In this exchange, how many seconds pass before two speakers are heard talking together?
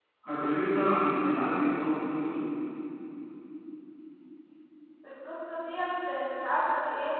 none

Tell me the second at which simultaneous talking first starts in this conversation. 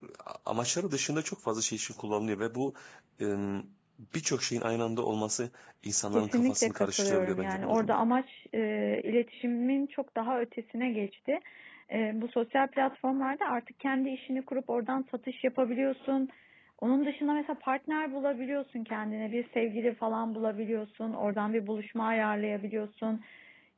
6 s

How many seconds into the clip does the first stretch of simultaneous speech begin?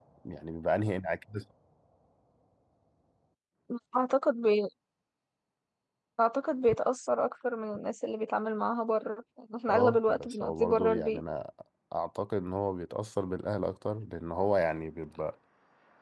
10 s

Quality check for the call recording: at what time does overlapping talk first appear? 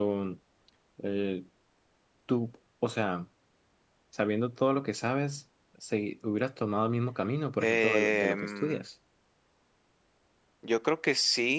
8 s

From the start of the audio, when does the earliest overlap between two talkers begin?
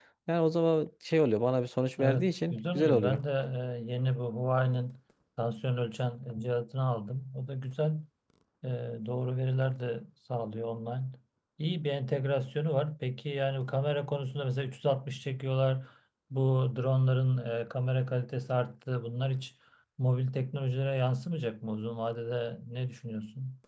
2 s

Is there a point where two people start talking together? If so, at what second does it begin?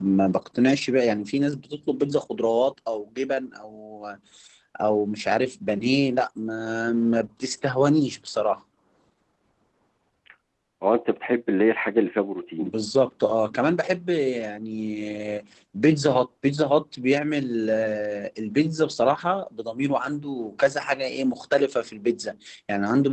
none

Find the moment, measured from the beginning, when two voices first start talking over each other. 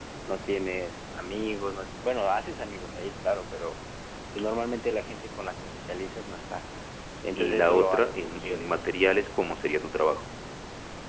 7 s

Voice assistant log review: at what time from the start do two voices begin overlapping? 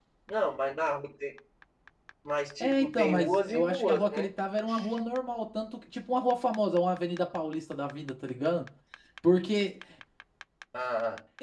3 s

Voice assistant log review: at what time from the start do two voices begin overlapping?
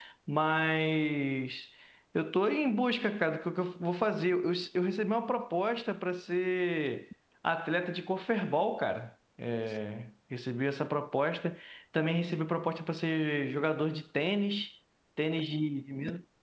none

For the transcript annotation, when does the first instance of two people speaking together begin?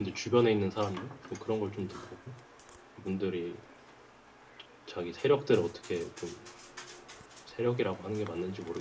none

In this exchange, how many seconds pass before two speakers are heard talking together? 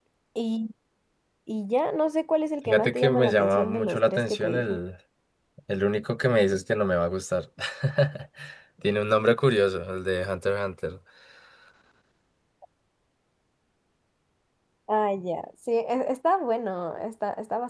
3 s

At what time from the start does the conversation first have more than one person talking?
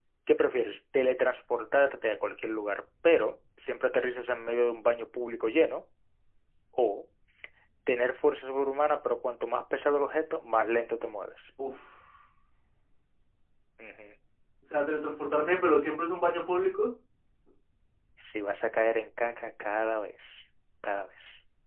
none

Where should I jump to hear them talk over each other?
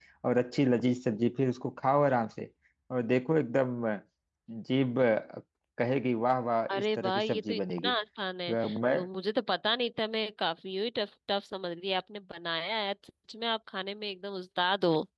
7 s

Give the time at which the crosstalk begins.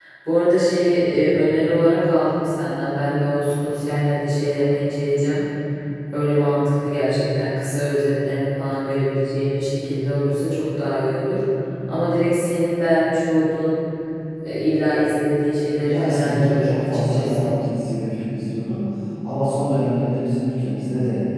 16 s

